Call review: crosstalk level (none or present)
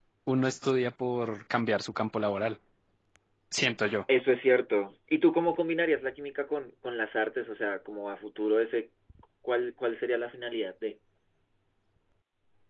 none